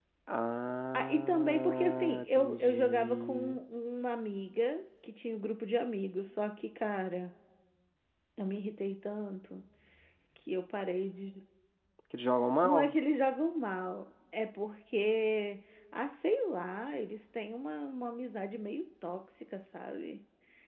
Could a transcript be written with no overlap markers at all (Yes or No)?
No